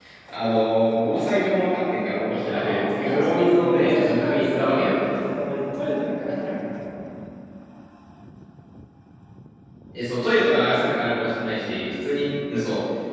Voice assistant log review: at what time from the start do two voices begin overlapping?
2.4 s

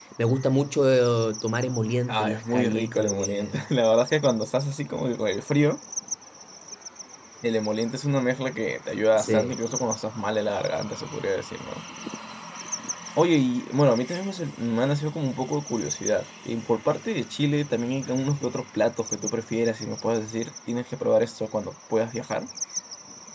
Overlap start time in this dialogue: 2.1 s

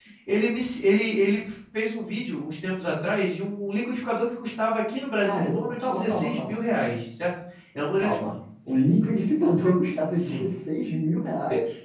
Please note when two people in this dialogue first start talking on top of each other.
5.2 s

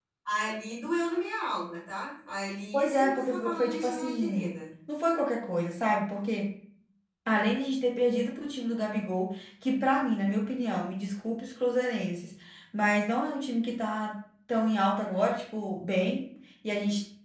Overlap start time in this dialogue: 2.7 s

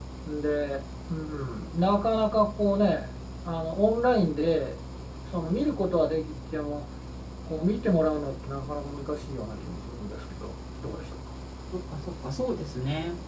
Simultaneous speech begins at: none

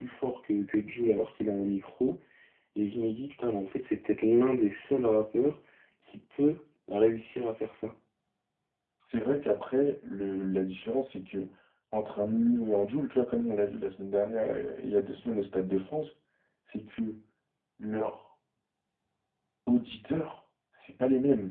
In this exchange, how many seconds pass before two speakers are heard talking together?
none

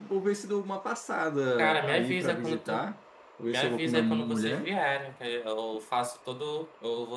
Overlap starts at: 1.6 s

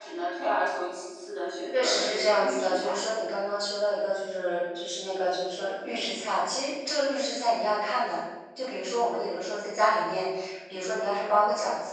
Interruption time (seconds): 1.7 s

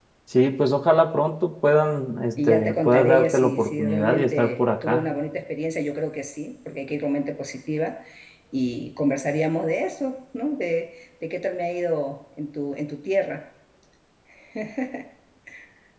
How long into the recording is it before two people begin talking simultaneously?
2.4 s

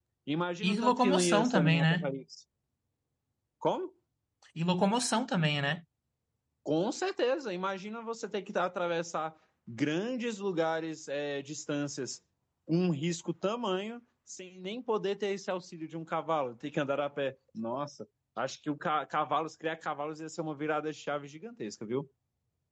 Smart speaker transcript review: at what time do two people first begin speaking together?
0.6 s

